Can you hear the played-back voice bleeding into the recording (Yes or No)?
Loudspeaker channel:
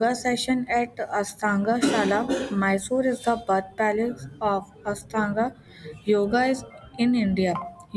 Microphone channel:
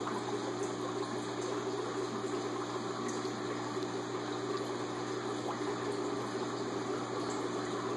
No